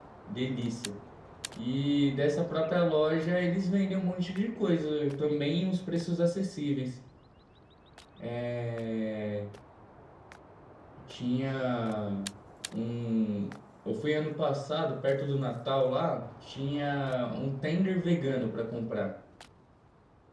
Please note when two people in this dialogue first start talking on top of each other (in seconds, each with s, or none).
none